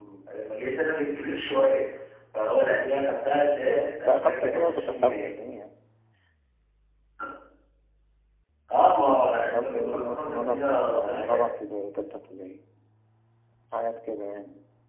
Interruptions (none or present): present